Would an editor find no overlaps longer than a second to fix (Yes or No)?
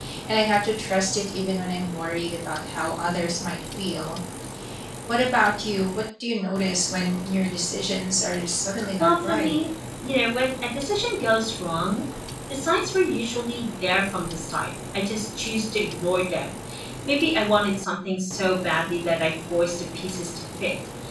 Yes